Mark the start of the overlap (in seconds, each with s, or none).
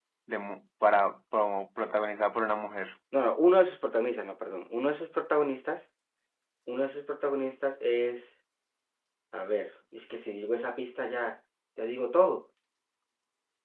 none